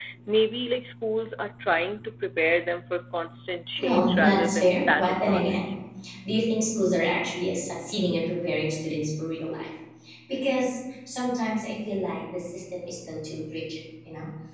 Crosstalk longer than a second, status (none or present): present